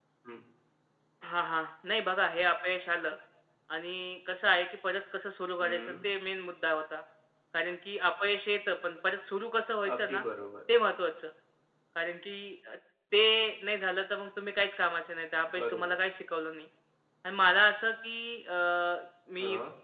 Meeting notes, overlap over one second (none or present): none